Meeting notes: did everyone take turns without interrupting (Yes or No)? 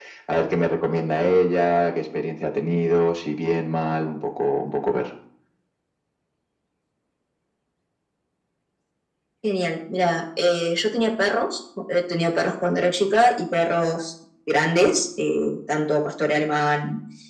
Yes